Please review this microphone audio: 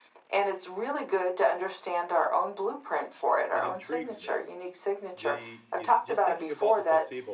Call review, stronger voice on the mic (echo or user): echo